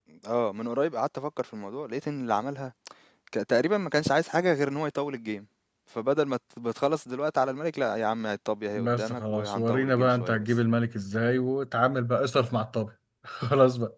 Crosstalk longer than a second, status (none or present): present